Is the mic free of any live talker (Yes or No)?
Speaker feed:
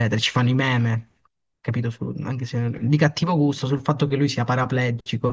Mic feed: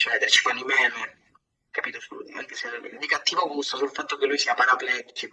Yes